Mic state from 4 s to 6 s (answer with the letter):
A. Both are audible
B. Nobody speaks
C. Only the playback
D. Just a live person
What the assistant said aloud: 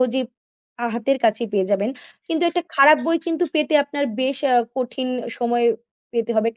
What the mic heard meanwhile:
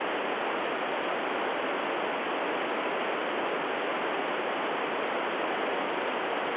B